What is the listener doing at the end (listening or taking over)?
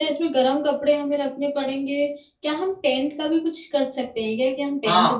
taking over